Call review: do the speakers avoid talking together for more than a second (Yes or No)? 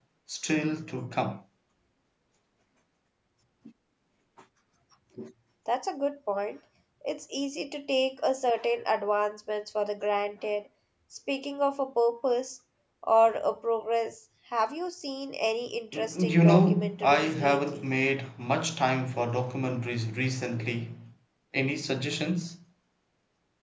No